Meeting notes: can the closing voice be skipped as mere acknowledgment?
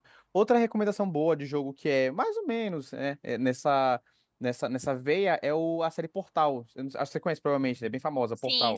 No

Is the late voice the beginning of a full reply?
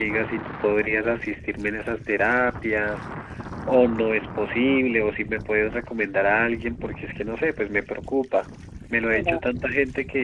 No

